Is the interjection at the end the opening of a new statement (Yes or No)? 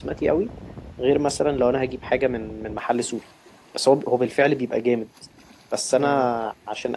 No